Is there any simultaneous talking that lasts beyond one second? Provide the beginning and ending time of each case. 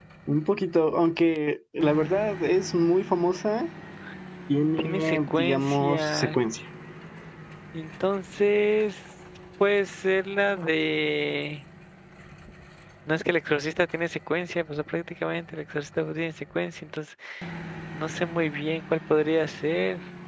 4.8-6.4

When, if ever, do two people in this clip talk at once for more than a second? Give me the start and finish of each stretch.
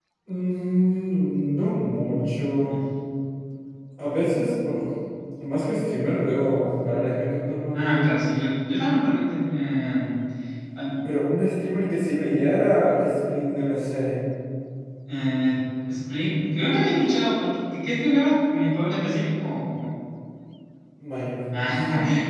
none

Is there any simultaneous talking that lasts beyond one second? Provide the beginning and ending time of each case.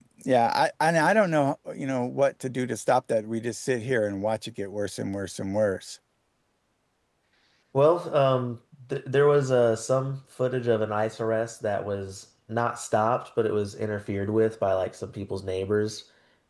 none

